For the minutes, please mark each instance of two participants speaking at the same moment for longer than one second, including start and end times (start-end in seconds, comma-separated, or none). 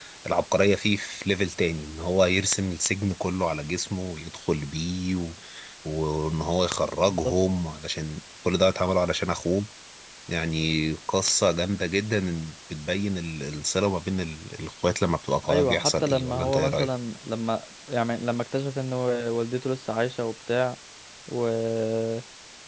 15.4-16.9